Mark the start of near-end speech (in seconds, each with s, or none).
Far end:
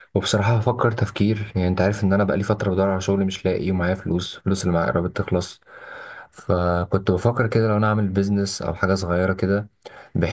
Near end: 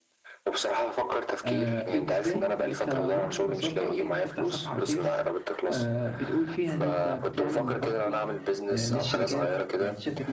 1.4 s